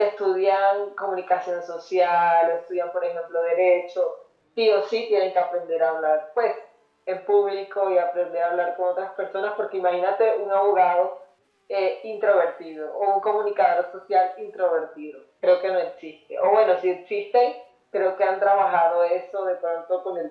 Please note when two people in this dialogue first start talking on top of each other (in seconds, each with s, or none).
none